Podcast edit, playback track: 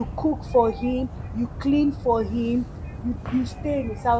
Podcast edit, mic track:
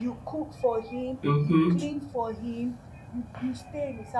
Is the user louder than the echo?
Yes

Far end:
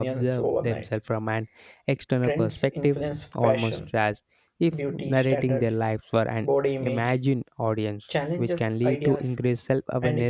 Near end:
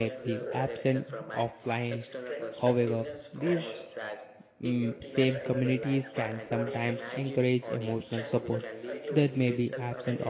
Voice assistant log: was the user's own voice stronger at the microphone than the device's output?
Yes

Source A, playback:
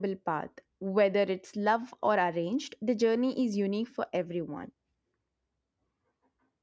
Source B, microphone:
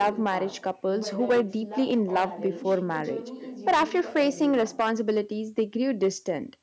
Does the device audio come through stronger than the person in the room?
No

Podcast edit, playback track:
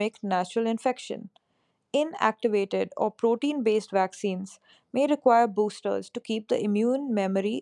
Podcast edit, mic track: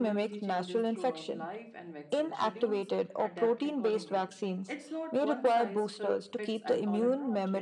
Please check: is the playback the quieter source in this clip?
No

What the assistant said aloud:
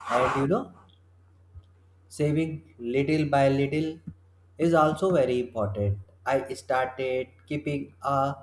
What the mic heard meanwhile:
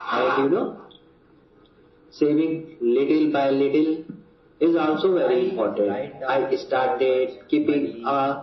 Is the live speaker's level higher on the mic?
No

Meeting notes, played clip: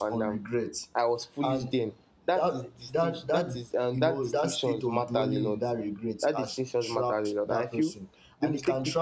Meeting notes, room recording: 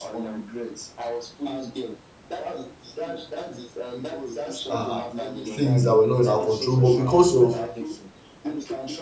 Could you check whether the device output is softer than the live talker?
Yes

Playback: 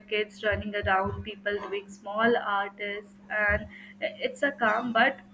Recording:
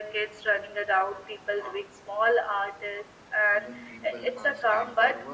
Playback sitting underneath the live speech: No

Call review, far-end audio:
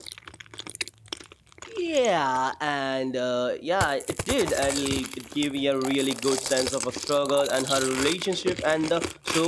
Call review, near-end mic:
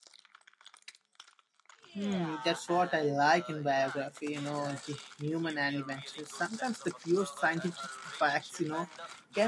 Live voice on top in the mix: Yes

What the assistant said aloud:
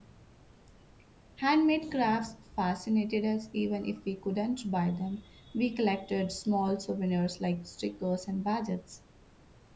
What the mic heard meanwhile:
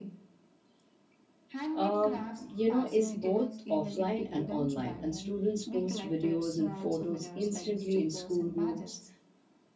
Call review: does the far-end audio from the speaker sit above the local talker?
No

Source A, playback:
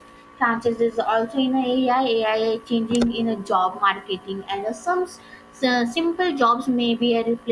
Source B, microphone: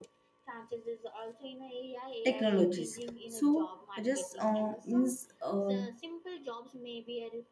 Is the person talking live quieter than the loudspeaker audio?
No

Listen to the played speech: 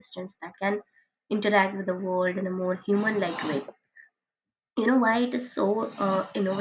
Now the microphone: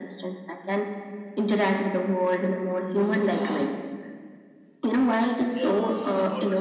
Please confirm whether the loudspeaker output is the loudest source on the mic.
Yes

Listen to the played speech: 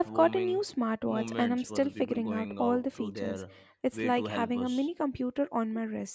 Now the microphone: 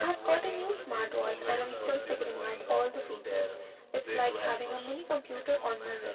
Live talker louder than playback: No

